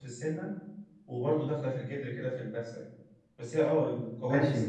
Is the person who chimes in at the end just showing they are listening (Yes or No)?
No